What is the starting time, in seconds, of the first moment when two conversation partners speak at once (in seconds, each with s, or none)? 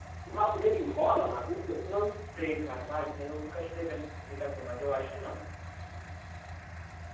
none